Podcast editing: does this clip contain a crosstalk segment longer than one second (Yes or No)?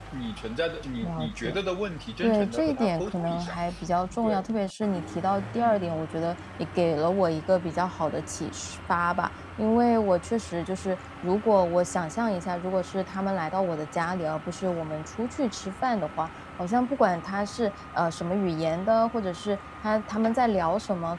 Yes